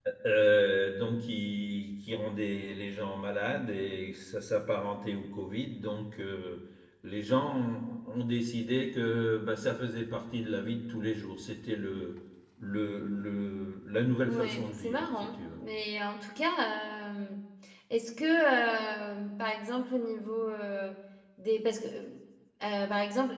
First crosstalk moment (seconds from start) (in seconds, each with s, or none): 14.3 s